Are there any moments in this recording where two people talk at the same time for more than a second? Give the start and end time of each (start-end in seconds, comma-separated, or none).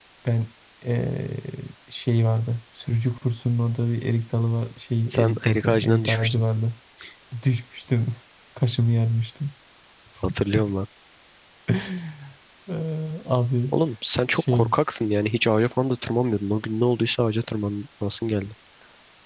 5.1-6.4